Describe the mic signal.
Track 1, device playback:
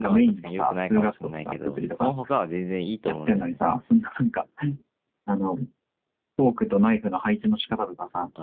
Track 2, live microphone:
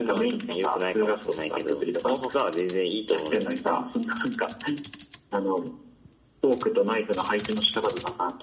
echo only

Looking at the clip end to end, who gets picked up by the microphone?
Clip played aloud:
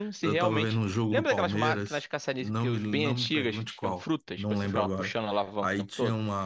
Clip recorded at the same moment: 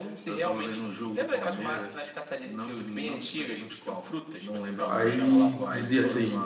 both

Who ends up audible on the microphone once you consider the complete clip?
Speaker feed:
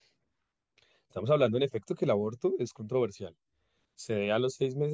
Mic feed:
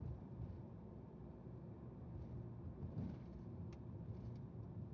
neither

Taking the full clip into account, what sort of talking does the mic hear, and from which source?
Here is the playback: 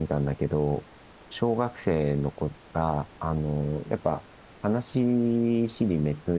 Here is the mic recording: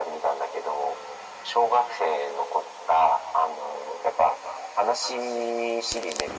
echo only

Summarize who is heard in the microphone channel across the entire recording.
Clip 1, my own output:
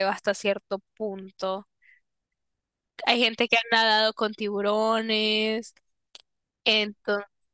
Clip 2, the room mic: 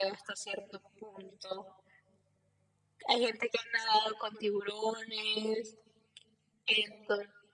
echo only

